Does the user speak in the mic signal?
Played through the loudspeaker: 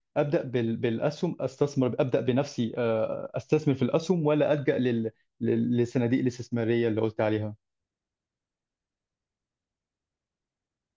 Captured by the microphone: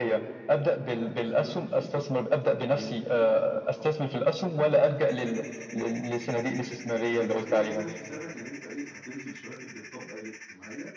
Yes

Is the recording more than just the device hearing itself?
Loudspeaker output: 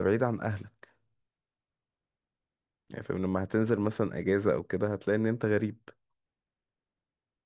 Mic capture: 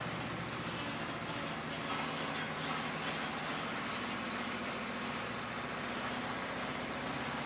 No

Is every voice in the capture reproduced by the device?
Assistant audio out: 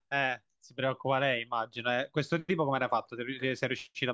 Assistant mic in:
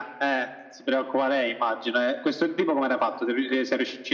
Yes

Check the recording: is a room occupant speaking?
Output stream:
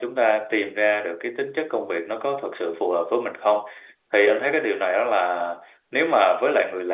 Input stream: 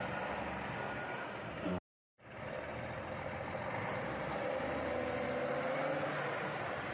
No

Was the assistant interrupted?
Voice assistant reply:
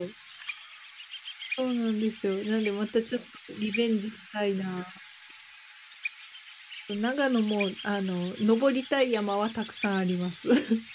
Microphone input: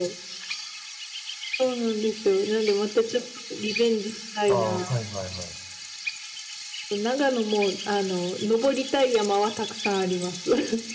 Yes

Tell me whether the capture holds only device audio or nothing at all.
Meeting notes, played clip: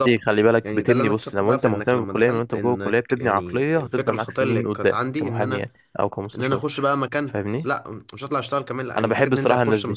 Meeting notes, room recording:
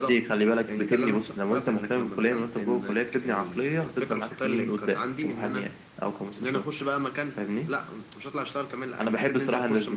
Yes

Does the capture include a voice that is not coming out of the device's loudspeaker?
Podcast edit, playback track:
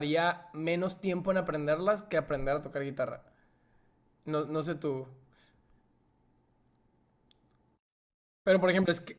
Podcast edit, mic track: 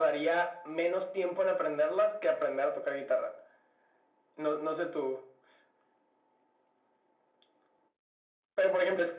No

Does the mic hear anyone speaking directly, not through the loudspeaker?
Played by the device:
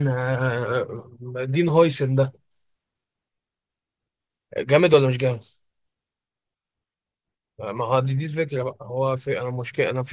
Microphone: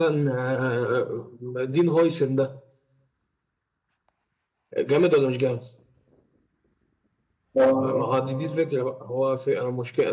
Yes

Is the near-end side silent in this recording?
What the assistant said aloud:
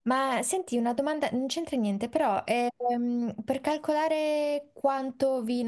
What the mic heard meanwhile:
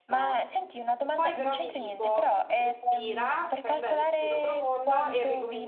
No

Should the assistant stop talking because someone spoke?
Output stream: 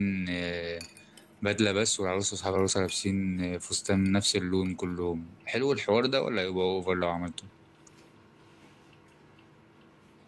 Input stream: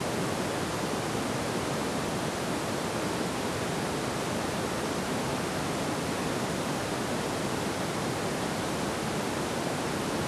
No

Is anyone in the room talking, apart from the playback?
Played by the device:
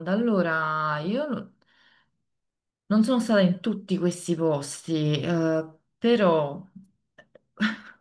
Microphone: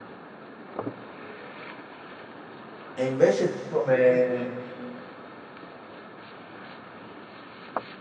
Yes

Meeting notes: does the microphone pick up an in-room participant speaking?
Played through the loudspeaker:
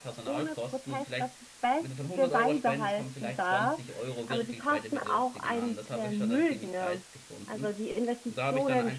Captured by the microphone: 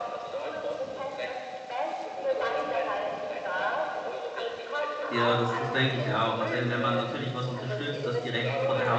Yes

